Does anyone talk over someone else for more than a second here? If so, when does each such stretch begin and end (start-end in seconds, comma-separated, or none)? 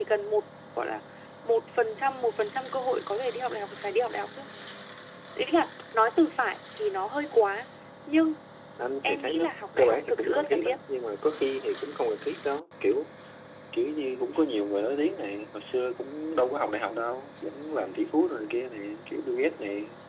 9.0-10.8